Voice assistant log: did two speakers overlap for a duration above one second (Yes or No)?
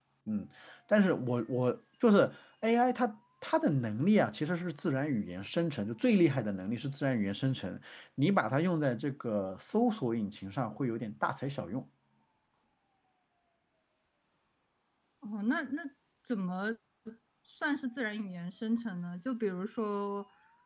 No